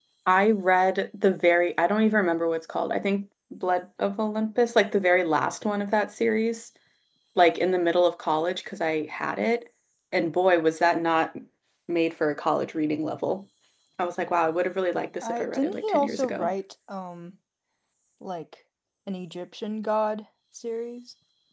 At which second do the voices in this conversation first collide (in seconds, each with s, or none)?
15.2 s